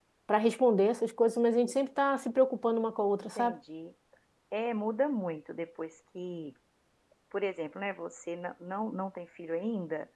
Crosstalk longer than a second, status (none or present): none